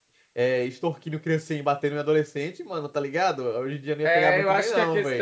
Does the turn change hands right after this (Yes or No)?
Yes